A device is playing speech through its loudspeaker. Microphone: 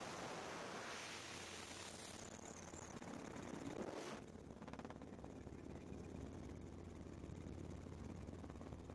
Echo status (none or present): none